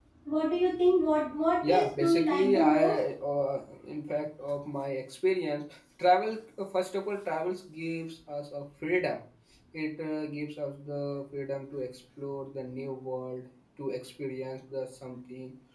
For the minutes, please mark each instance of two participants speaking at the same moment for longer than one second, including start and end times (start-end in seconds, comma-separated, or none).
1.6-3.0